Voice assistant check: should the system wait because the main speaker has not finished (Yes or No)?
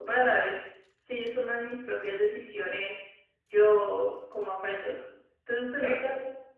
No